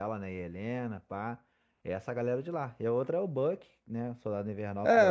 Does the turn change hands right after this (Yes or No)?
Yes